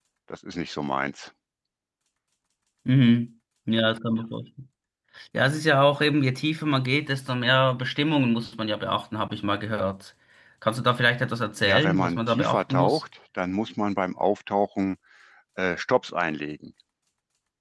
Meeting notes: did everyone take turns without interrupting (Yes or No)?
No